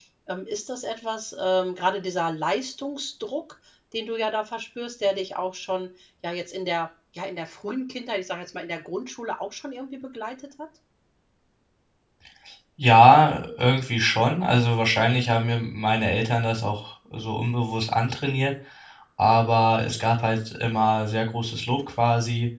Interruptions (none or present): none